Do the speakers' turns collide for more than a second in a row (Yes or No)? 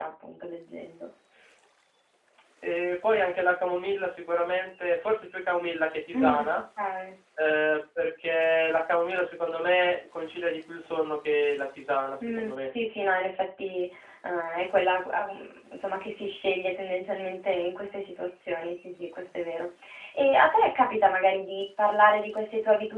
No